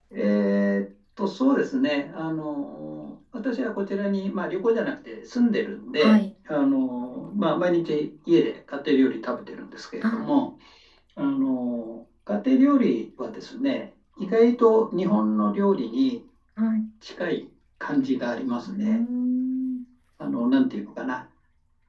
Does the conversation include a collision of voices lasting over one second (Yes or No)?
No